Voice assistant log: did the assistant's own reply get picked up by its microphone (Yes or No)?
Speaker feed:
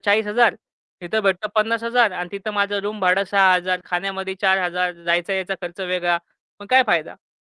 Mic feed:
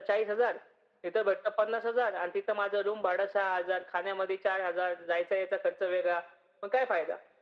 Yes